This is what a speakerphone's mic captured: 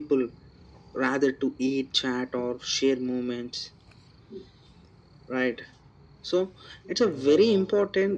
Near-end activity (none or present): present